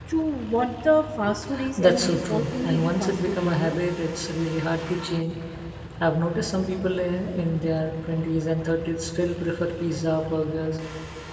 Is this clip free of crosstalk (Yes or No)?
No